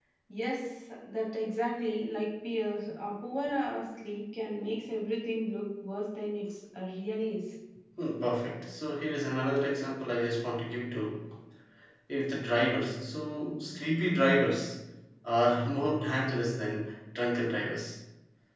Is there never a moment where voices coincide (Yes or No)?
Yes